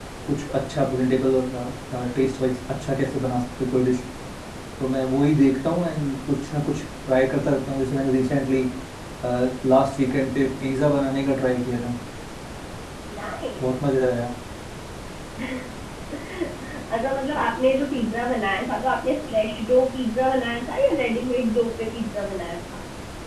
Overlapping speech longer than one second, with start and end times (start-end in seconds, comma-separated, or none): none